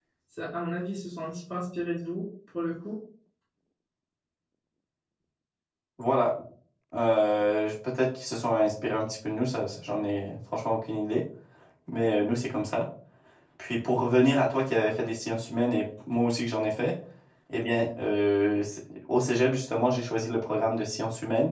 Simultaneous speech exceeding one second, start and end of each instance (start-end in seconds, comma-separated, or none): none